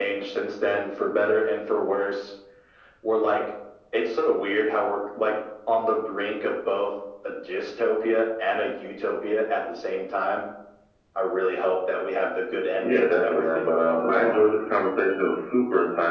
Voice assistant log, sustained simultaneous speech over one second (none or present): present